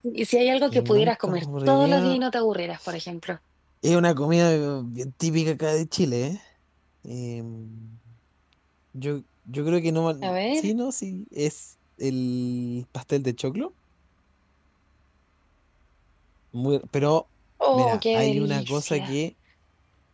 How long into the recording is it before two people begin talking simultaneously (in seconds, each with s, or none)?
0.7 s